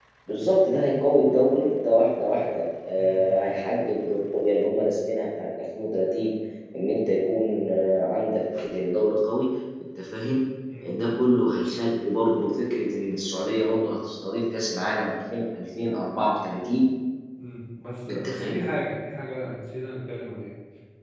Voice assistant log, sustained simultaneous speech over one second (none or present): none